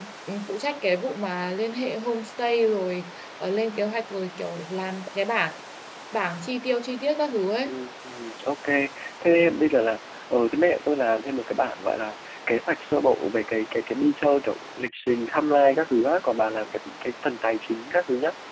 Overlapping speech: No

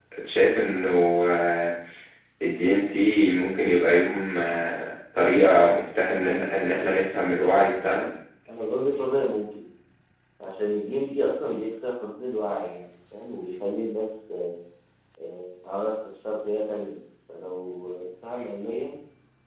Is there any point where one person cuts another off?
Yes, from 6.0 s

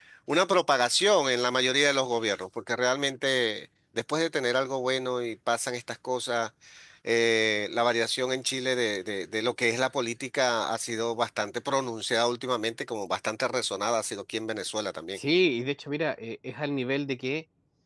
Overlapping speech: No

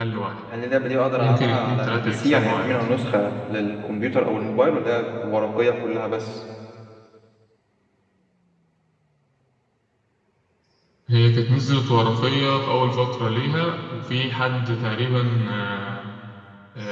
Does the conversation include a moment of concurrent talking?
Yes, from 1.2 s

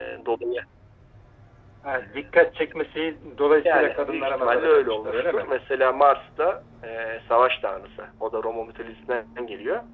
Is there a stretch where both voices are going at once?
Yes, from 3.6 s

